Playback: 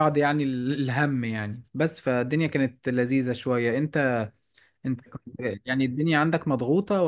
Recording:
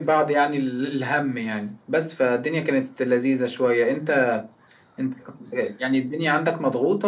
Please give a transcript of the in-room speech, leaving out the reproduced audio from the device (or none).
none